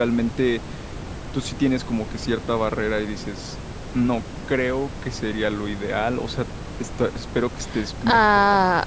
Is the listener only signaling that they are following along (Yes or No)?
No